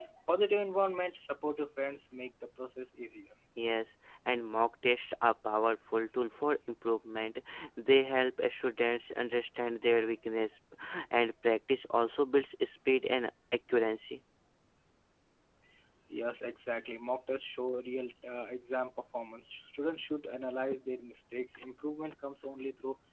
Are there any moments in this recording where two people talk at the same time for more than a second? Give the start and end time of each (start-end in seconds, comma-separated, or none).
none